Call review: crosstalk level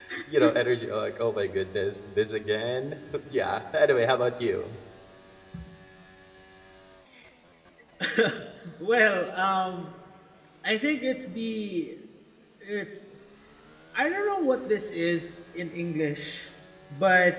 none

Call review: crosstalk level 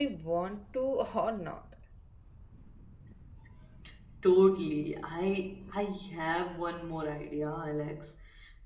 none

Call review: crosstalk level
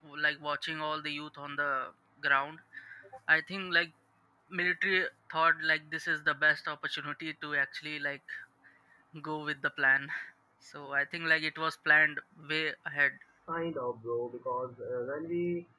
none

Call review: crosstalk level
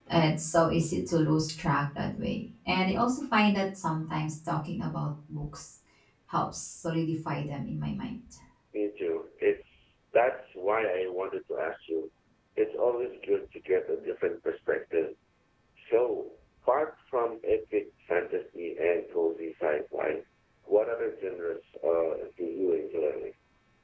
none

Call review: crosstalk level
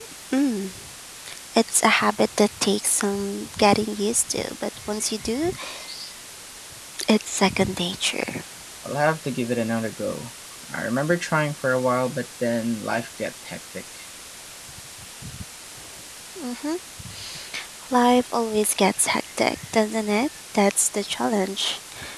none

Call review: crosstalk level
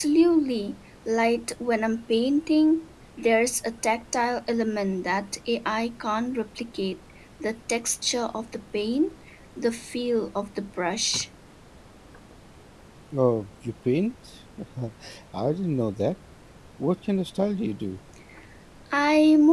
none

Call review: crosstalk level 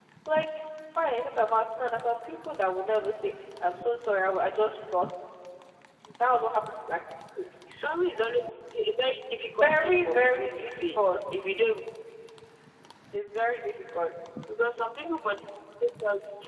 present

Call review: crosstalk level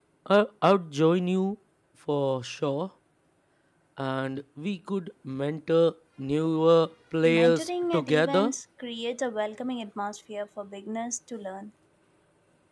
present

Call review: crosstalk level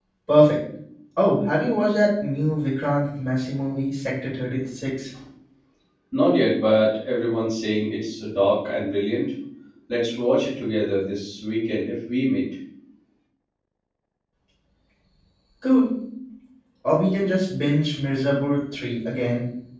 none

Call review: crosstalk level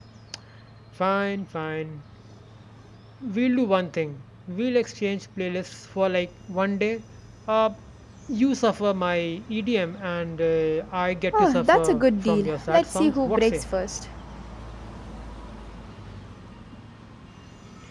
present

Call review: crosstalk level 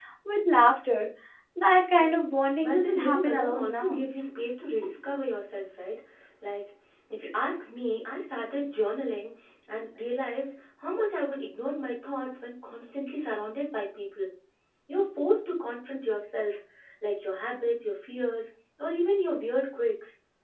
present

